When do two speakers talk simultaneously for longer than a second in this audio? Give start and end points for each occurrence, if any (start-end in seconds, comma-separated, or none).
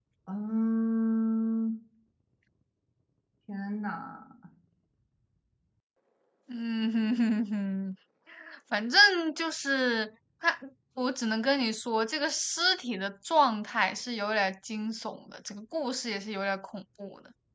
none